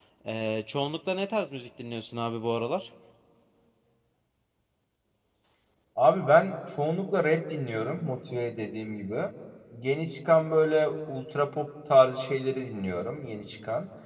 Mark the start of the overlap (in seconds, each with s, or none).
none